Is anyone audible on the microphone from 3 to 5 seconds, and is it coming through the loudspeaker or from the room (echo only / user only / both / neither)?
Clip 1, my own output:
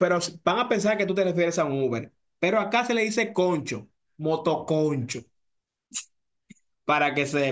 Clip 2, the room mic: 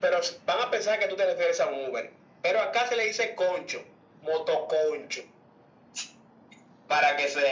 echo only